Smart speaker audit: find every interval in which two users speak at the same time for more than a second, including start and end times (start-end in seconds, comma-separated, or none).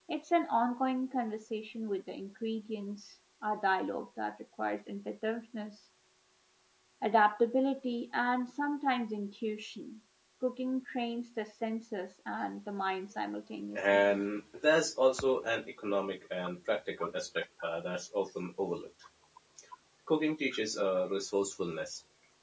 none